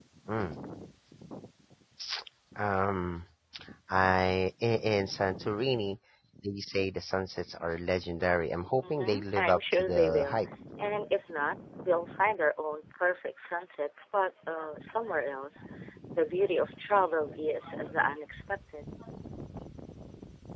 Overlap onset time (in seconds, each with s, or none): 8.8 s